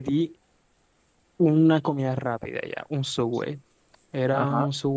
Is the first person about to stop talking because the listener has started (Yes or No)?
No